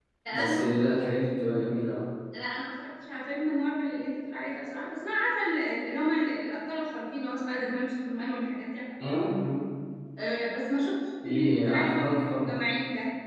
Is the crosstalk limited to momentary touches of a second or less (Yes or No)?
No